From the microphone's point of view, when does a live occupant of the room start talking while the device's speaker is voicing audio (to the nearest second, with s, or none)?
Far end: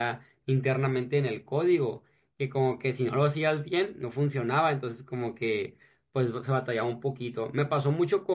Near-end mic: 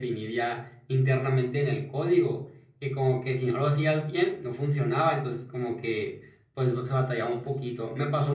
none